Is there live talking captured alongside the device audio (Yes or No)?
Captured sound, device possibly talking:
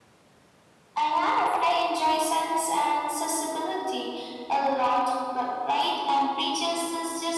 No